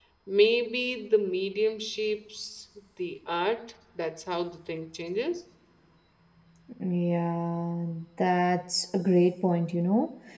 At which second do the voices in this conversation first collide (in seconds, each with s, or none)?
none